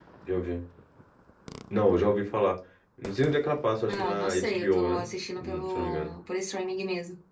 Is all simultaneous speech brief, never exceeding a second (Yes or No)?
No